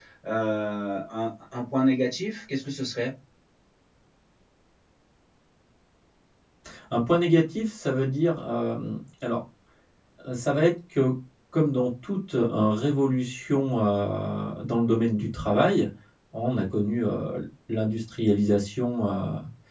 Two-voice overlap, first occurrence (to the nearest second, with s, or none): none